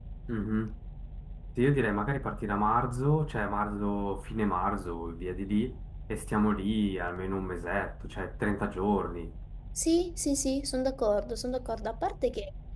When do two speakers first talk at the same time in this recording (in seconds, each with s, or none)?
none